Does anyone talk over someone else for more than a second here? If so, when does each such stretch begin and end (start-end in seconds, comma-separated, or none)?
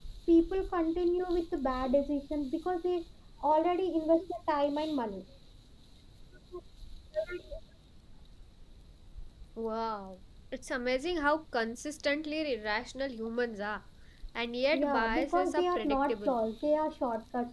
14.7-16.4